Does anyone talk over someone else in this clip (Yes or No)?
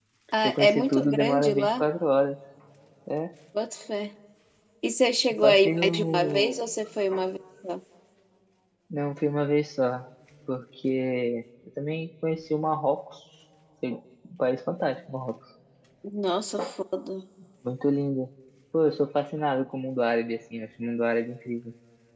Yes